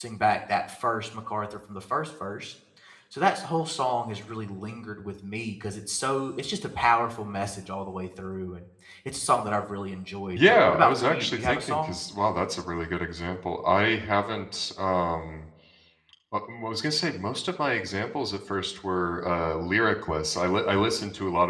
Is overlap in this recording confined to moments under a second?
No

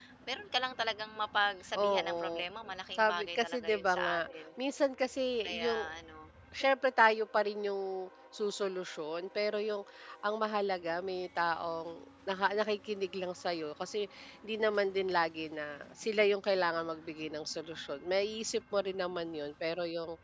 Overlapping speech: Yes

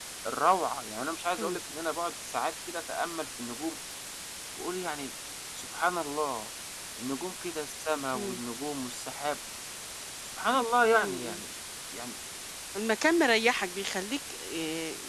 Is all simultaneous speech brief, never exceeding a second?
Yes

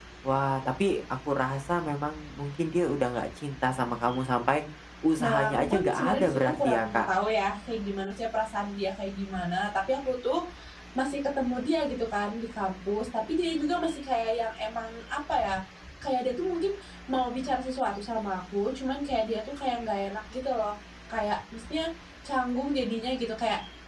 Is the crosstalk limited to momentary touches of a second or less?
No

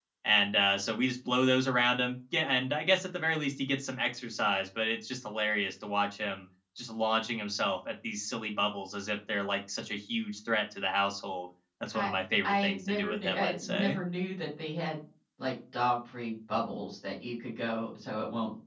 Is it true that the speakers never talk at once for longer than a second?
No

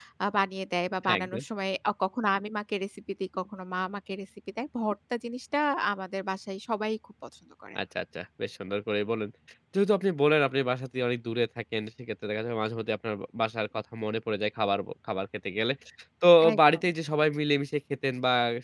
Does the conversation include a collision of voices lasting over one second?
No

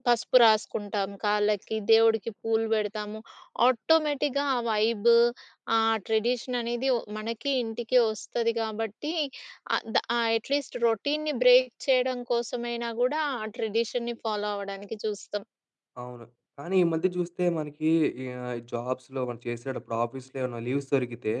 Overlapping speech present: No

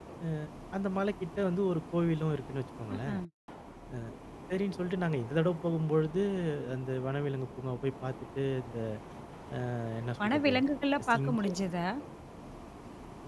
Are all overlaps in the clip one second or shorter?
Yes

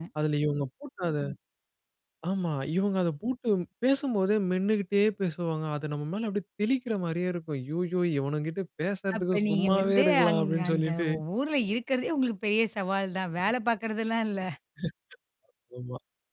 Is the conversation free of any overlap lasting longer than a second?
No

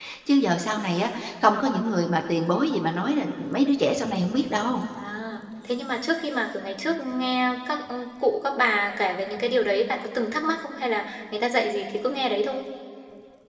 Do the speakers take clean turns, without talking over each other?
Yes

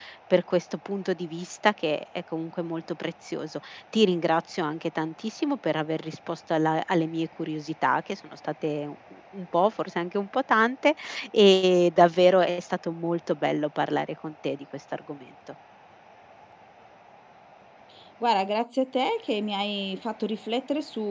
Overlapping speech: No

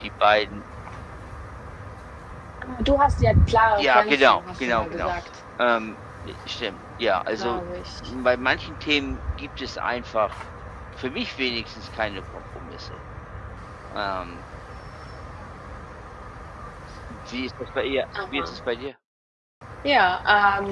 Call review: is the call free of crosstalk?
No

